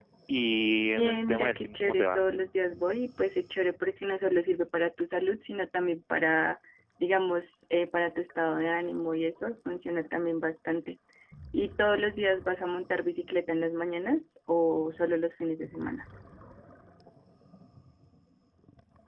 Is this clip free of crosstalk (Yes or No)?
No